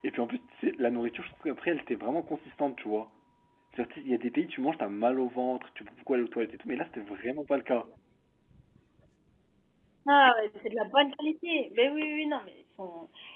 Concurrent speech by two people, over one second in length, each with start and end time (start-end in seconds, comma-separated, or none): none